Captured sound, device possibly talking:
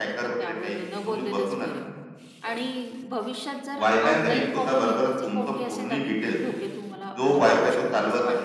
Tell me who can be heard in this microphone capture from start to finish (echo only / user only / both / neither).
both